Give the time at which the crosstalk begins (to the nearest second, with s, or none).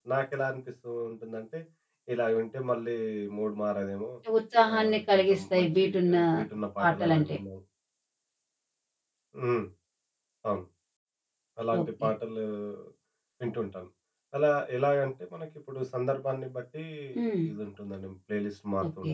5 s